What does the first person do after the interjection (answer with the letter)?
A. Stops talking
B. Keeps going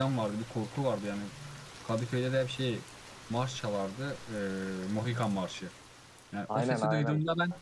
B